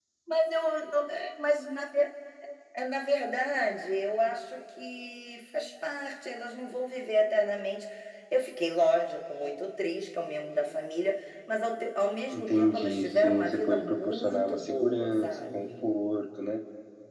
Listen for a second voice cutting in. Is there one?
Yes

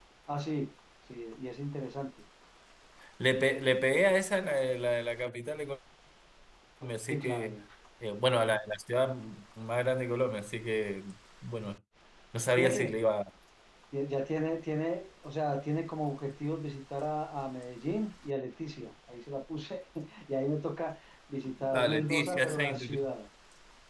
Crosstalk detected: Yes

